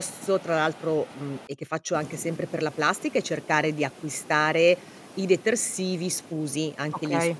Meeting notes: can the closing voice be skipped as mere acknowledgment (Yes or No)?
Yes